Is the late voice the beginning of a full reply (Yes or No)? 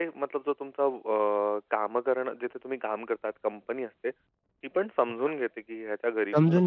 Yes